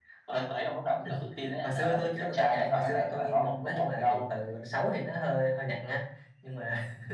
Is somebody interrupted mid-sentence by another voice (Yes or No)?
Yes